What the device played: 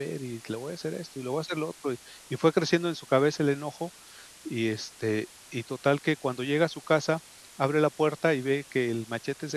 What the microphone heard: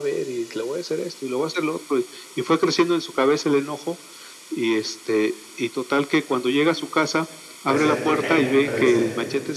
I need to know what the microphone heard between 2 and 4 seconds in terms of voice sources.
echo only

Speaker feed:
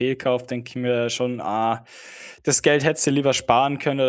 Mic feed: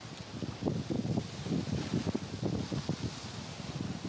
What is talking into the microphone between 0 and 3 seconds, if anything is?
neither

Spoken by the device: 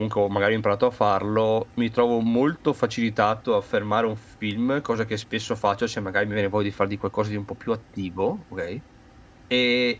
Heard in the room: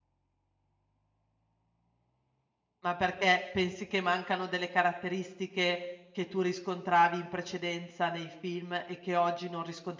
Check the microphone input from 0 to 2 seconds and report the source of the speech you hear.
neither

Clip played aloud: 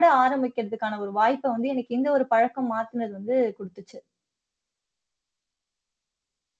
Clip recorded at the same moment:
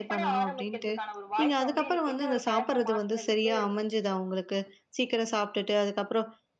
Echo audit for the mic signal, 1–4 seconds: both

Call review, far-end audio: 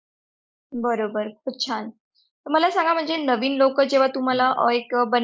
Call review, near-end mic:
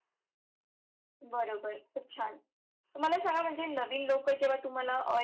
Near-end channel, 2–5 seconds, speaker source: echo only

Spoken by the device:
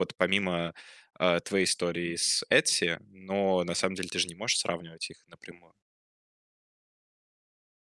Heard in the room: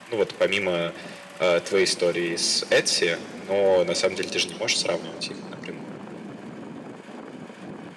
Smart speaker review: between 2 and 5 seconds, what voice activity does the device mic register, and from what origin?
echo only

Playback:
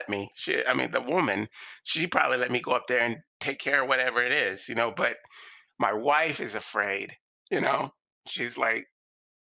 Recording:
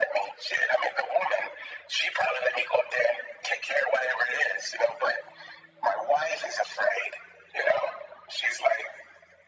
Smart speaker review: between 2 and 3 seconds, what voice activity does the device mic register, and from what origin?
echo only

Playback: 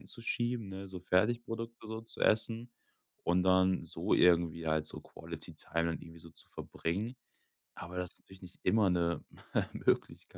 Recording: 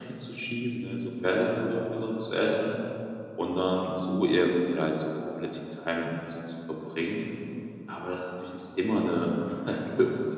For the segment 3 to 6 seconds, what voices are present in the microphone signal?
echo only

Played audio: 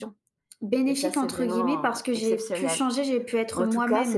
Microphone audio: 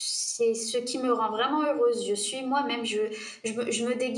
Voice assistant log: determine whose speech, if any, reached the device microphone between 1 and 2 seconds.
user only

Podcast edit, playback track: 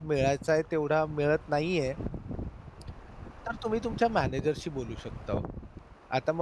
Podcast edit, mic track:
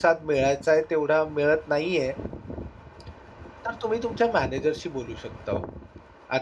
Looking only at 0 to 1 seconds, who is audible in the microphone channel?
echo only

